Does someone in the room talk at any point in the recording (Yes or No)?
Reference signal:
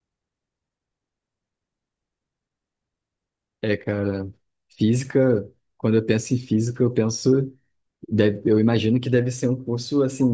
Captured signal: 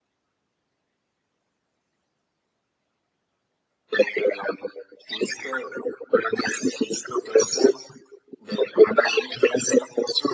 No